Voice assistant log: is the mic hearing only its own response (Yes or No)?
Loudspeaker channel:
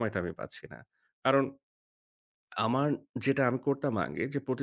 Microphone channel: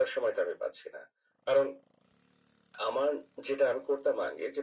Yes